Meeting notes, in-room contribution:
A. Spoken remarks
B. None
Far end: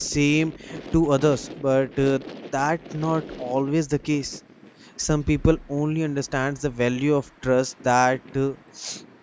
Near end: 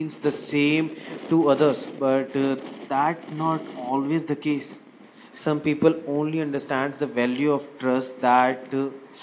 B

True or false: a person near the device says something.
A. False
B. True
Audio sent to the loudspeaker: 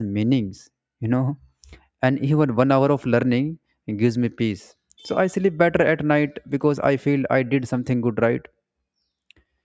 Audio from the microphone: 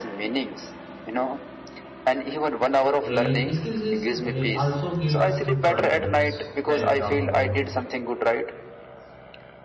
B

